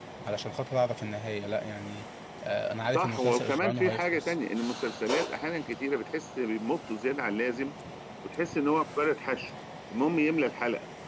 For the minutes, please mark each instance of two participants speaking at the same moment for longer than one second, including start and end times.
2.9-4.3

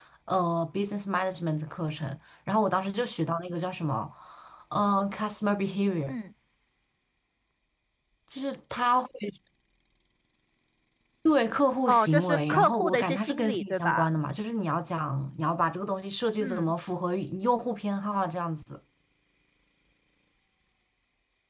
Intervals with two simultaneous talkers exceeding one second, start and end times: 11.9-14.1

